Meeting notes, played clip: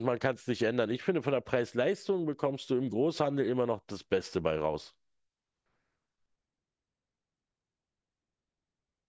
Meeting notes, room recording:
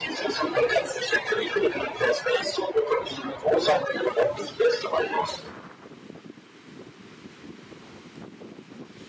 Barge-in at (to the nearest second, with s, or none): none